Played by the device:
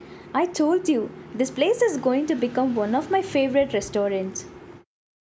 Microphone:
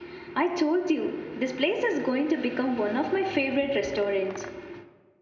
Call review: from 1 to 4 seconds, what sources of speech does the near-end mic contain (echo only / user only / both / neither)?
echo only